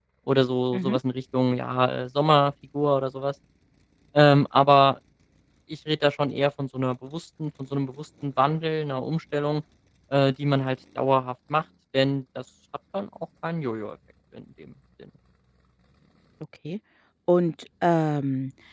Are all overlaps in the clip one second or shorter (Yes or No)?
Yes